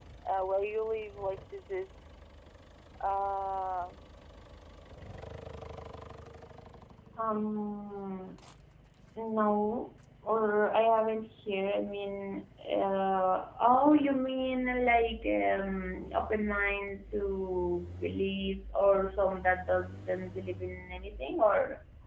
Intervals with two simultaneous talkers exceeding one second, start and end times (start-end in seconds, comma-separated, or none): none